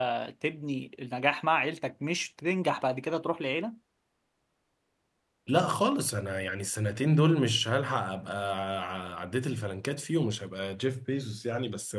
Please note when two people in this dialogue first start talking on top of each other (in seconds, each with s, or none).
none